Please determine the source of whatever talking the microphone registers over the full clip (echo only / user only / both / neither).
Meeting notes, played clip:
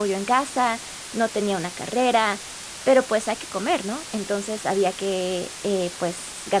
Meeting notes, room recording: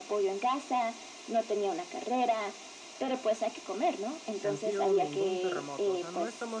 both